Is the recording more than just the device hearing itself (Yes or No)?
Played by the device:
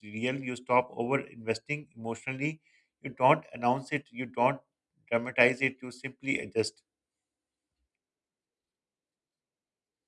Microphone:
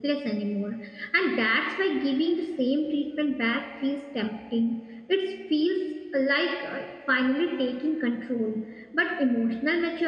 Yes